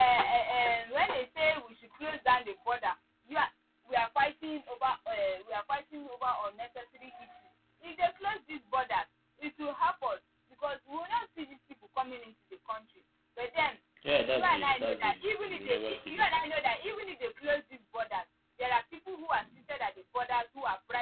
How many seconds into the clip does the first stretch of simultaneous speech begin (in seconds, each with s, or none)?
14.4 s